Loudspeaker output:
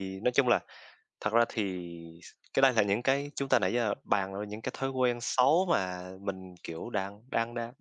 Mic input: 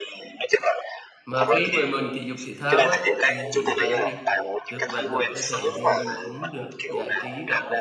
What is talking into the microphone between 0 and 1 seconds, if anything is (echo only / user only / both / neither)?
echo only